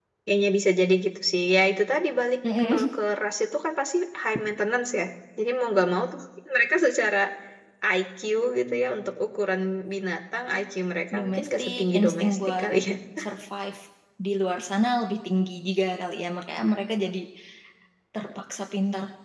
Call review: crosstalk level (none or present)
present